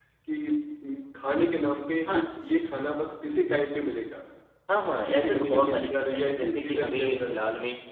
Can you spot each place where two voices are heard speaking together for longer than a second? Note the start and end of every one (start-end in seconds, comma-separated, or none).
5.1-7.4